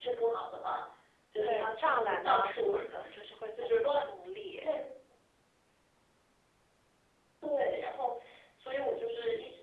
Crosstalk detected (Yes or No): Yes